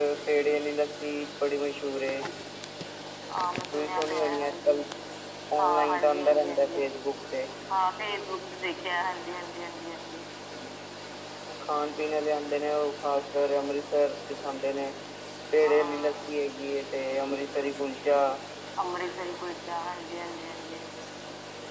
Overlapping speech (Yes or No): Yes